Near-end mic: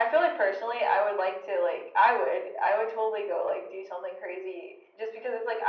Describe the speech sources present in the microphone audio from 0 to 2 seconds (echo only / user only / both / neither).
echo only